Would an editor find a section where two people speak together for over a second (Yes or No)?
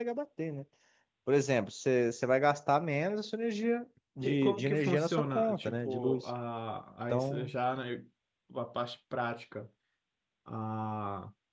Yes